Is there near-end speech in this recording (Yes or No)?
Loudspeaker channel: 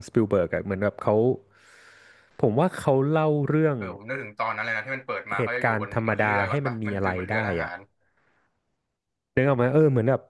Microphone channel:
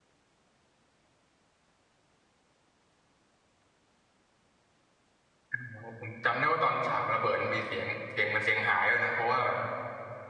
Yes